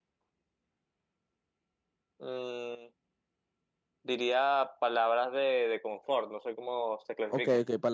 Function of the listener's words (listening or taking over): taking over